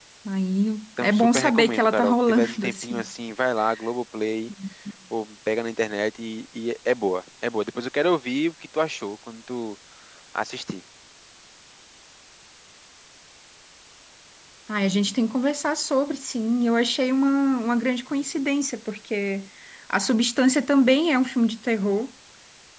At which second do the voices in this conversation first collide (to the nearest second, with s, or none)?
1 s